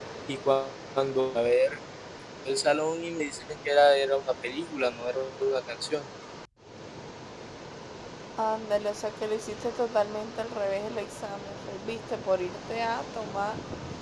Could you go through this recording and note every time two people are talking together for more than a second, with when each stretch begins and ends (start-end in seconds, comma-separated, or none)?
none